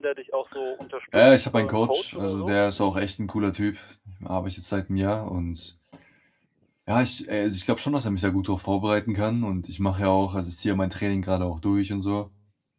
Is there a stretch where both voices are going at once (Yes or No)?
Yes